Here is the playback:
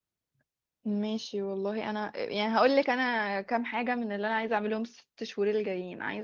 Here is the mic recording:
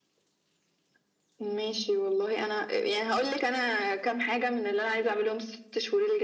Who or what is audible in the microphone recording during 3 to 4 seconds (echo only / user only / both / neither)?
echo only